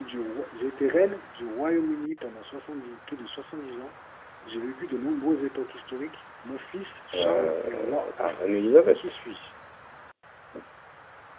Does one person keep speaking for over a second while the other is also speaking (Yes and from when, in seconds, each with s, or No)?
Yes, from 7.1 s